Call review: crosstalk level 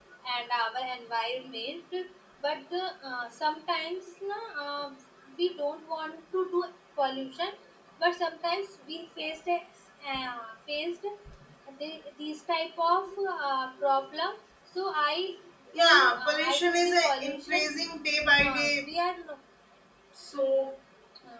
present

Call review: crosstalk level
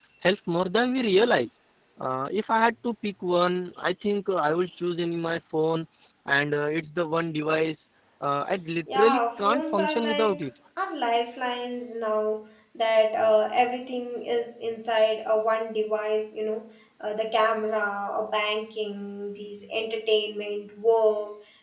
present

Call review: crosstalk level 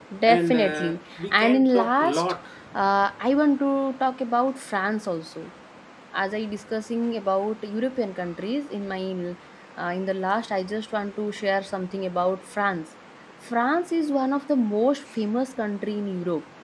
present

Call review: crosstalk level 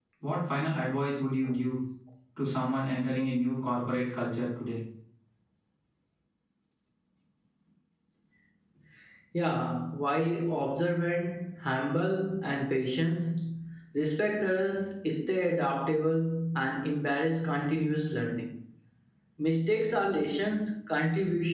none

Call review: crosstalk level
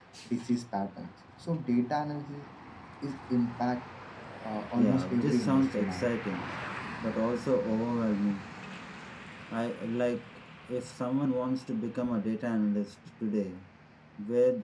present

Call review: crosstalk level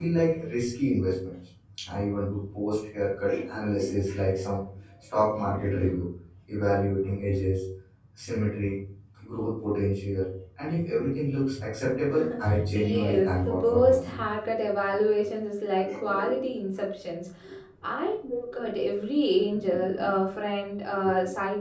present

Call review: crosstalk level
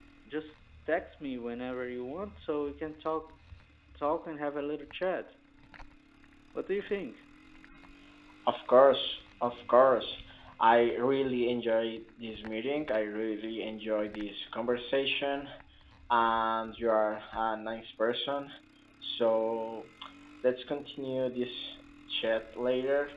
none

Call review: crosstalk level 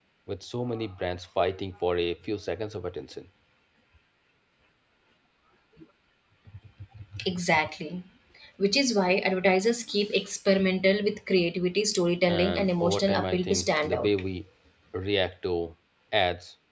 present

